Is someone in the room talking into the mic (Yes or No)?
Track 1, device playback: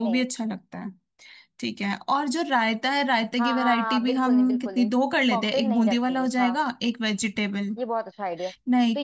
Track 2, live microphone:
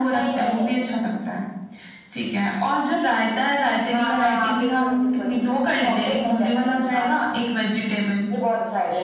No